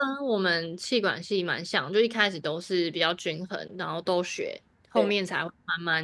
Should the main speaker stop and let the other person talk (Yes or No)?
No